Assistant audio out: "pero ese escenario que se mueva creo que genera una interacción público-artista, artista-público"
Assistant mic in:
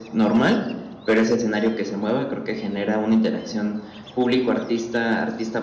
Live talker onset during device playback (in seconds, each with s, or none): none